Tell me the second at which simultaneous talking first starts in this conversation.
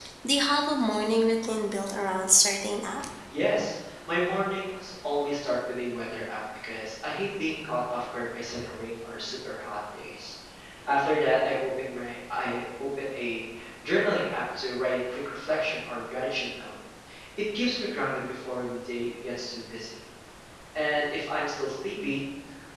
none

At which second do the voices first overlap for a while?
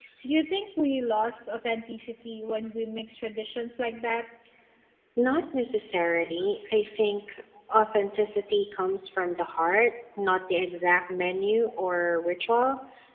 none

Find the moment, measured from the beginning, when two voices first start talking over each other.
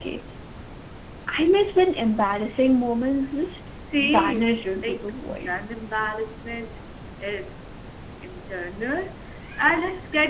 3.9 s

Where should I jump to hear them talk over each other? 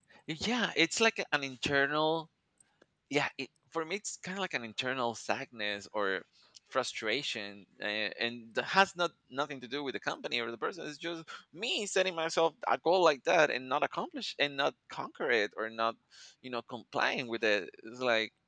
none

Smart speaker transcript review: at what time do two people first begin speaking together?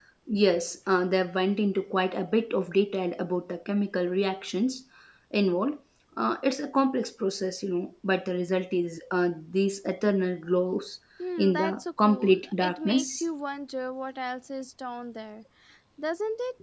11.4 s

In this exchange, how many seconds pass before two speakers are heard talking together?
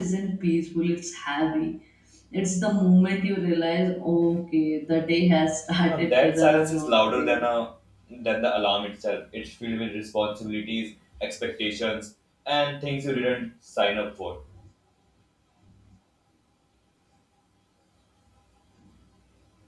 5.9 s

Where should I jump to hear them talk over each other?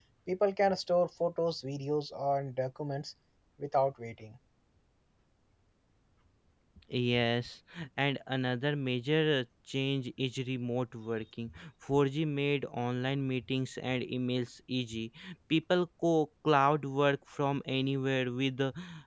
none

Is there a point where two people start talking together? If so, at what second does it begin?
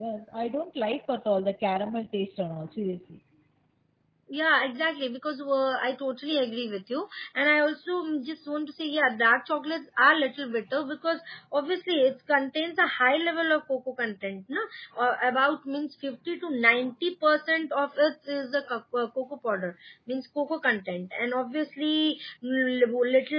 none

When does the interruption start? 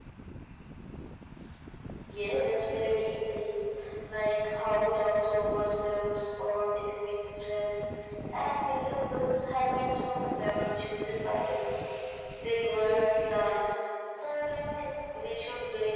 none

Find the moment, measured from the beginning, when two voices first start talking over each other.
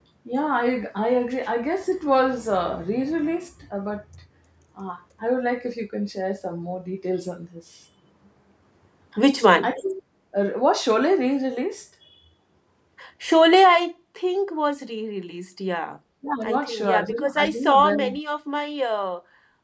16.4 s

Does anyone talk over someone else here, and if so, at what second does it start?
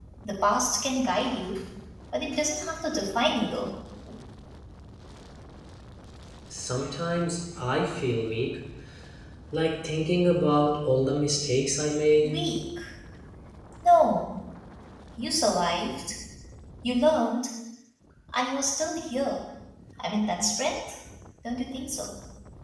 none

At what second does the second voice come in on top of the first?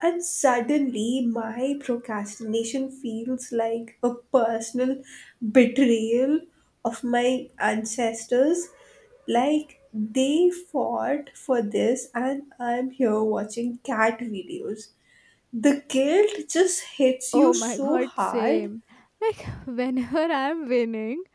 17.3 s

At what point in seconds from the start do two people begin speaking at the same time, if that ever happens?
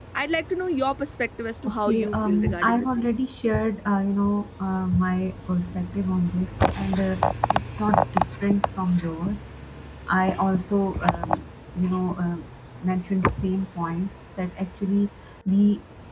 1.6 s

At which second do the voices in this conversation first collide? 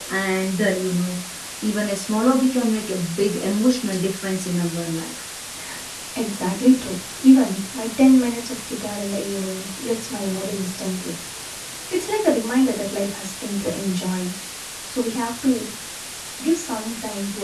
none

